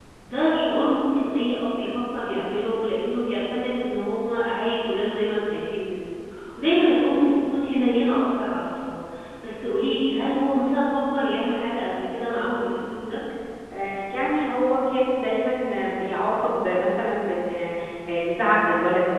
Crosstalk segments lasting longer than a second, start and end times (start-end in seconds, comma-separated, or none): none